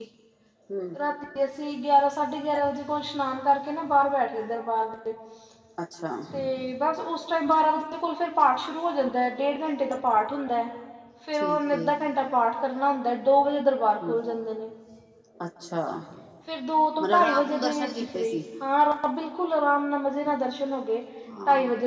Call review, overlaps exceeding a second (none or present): present